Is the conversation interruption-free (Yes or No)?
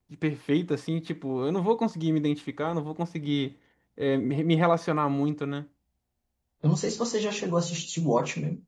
Yes